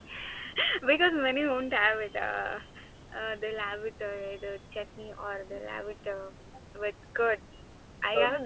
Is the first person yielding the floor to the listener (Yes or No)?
No